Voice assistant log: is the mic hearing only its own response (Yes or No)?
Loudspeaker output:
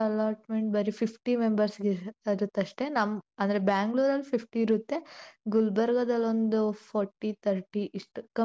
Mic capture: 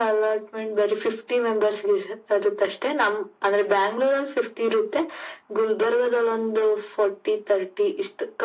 Yes